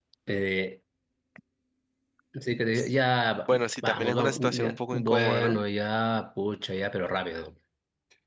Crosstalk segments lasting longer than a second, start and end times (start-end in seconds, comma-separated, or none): 3.8-5.6